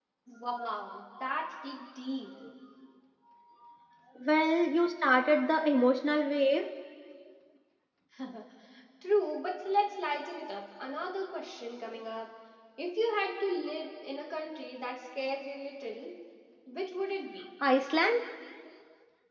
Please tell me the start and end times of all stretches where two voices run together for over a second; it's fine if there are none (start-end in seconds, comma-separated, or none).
none